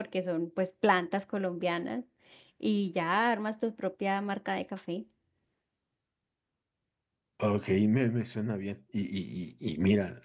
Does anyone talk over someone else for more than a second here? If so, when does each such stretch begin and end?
none

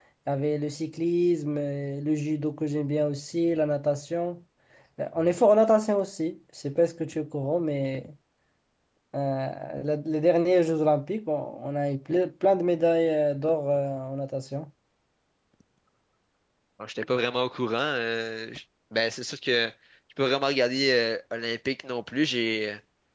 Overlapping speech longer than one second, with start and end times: none

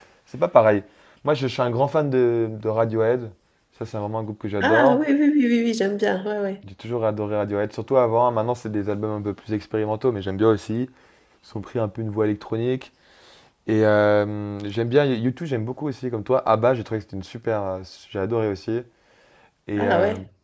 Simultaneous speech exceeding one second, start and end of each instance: none

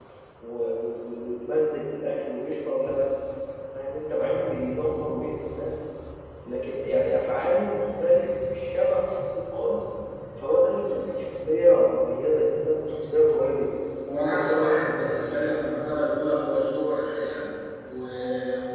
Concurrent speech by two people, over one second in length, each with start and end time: 14.3-15.7

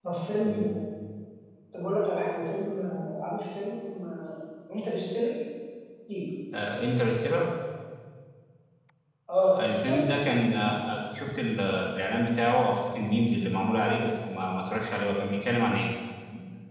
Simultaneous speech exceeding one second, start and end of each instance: none

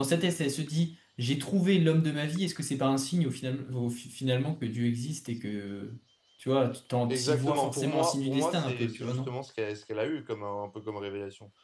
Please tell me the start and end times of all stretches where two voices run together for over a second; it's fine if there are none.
7.1-9.3

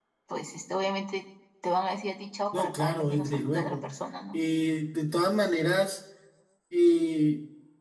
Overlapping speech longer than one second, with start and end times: 2.5-3.9

